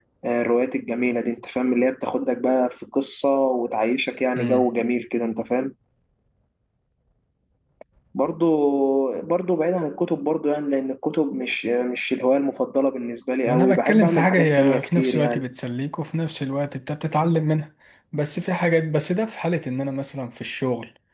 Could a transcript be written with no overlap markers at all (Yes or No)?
No